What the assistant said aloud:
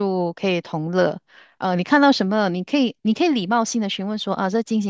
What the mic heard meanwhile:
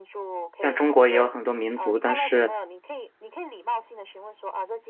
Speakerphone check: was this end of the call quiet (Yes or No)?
No